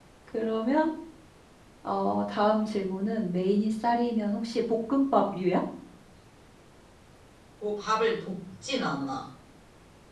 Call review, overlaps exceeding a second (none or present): none